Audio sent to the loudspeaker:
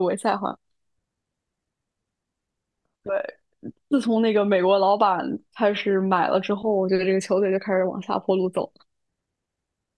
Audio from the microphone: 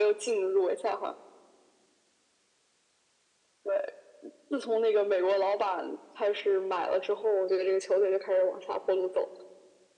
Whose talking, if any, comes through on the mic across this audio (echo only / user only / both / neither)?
echo only